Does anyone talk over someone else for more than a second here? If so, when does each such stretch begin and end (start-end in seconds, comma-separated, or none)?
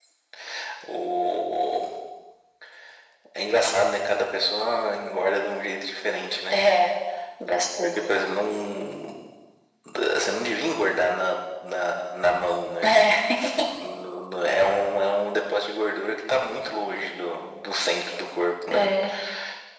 none